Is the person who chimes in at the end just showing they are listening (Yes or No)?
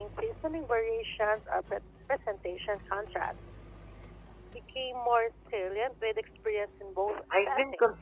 No